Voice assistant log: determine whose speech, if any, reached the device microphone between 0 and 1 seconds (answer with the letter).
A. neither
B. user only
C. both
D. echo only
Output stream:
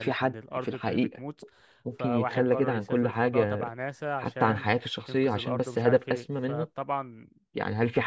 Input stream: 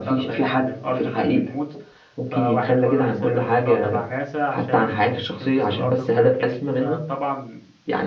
D